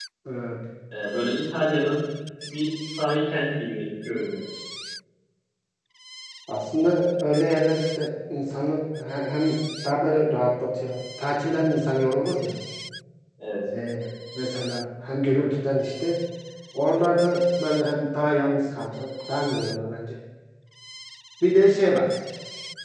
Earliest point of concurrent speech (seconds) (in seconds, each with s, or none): none